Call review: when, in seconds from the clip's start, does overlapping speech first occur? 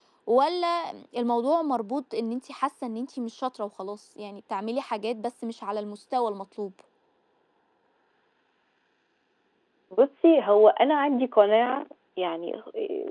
none

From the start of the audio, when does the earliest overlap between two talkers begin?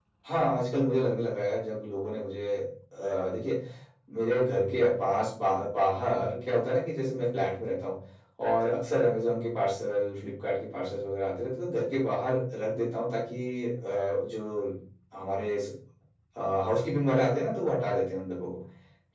none

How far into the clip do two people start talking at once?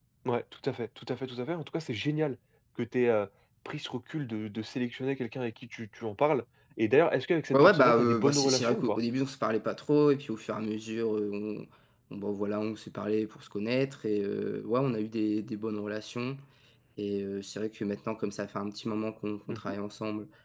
7.5 s

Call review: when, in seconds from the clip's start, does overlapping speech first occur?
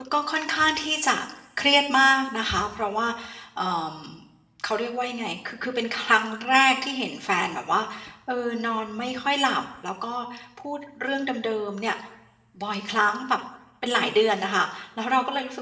none

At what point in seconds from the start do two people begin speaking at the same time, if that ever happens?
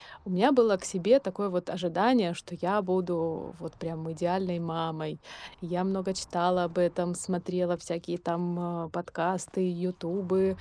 none

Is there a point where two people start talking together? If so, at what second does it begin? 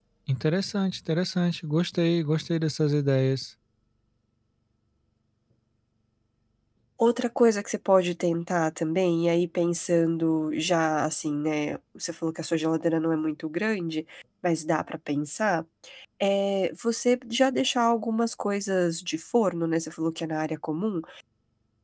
none

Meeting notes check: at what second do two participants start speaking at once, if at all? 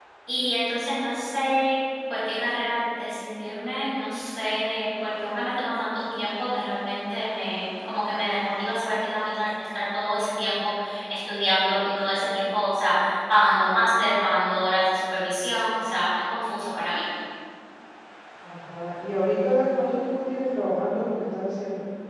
none

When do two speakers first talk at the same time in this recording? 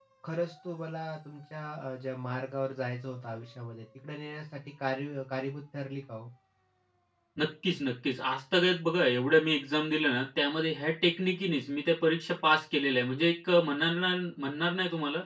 none

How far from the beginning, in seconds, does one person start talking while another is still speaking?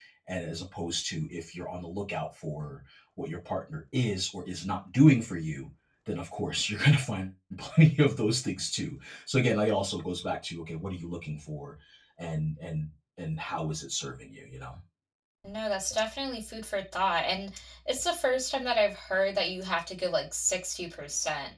none

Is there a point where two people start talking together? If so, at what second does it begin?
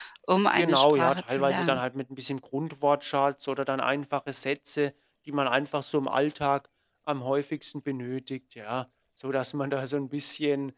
0.6 s

